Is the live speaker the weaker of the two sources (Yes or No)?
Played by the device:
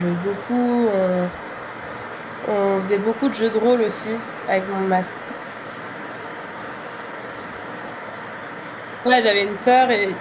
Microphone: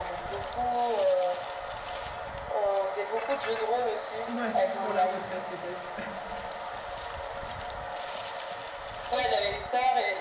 Yes